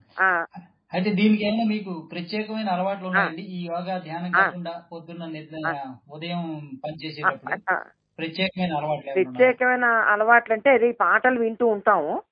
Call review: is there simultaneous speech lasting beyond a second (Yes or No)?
No